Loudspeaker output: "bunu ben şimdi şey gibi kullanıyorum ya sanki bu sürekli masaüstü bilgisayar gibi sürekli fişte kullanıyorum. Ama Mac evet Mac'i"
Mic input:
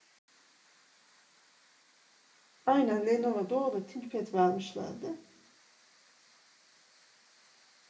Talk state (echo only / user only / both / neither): user only